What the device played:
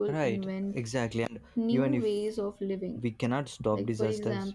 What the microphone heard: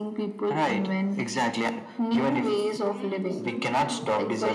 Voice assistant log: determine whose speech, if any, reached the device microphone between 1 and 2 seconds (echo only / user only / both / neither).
echo only